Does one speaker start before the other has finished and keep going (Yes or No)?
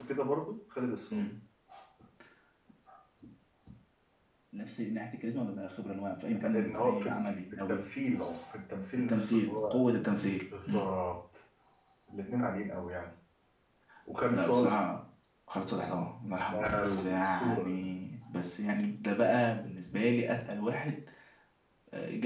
Yes